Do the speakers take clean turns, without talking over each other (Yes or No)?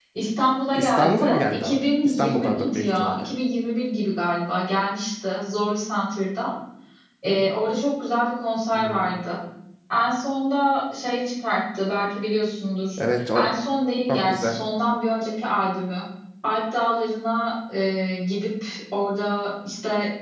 No